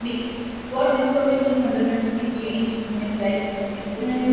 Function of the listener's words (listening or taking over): taking over